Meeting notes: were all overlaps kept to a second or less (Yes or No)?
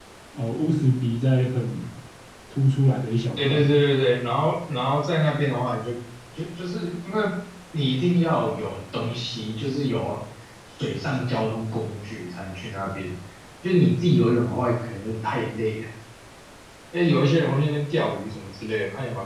Yes